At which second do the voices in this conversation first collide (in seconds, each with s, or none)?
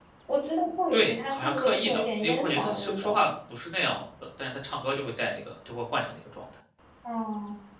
0.9 s